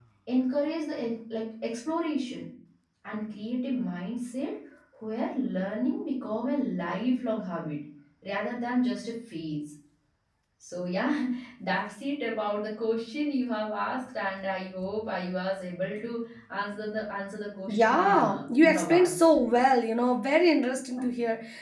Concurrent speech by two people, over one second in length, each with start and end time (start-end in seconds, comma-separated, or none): 17.7-19.1